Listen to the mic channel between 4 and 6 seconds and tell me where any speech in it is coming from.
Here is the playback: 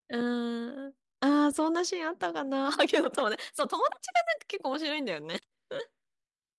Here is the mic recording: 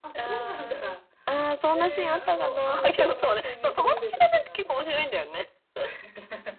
both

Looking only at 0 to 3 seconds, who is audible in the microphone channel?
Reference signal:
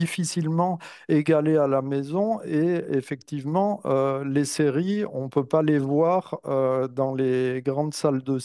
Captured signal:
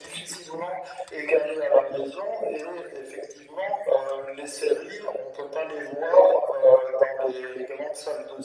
echo only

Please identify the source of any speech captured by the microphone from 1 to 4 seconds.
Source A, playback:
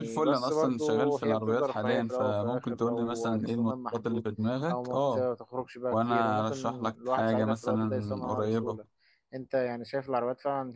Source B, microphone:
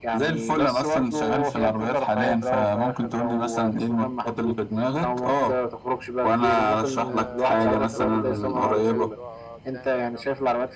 echo only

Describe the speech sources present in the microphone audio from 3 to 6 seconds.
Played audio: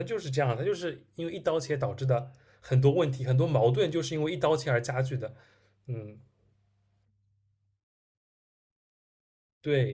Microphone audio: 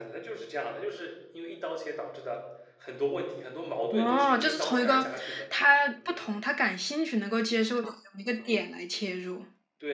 both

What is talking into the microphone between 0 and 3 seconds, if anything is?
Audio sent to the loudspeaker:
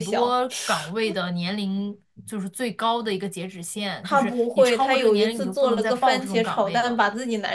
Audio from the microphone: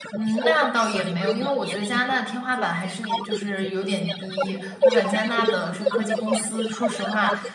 both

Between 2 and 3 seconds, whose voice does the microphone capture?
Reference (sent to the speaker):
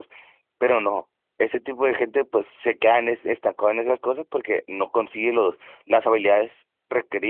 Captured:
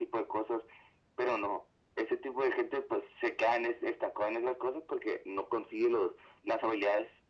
echo only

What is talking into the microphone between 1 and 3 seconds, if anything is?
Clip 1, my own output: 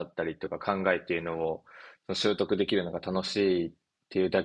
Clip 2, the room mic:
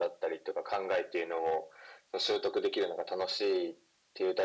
echo only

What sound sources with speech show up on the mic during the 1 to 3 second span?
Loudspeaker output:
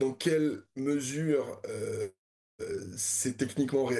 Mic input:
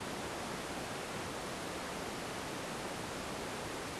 neither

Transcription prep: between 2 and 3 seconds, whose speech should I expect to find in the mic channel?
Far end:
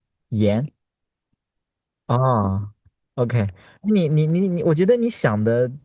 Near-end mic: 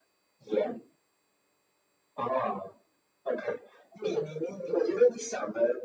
echo only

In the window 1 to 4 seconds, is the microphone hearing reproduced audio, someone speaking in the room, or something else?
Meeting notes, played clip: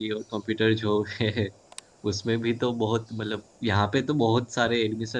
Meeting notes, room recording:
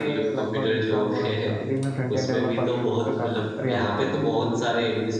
both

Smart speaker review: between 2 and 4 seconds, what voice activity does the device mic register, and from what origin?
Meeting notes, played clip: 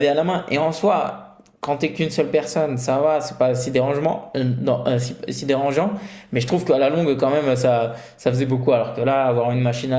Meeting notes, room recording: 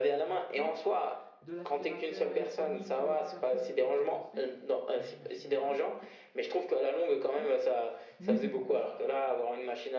both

